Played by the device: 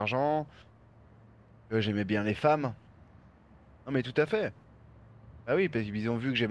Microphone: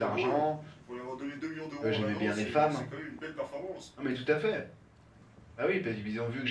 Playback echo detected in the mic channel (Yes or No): Yes